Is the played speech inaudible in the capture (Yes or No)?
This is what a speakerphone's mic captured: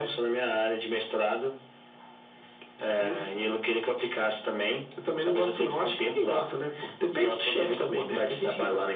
No